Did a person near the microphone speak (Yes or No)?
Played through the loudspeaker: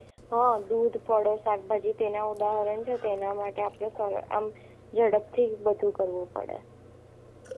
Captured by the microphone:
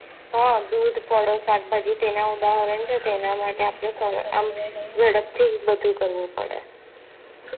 Yes